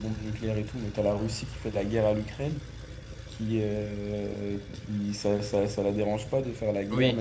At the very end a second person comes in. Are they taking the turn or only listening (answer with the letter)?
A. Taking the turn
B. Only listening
B